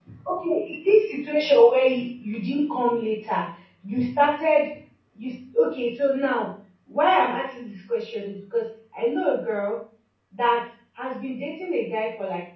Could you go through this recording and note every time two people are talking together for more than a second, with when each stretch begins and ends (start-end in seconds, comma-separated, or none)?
none